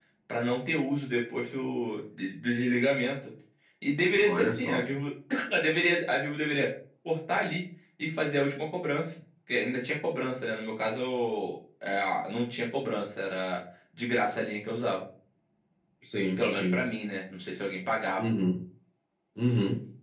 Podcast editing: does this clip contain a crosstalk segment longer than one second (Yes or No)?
No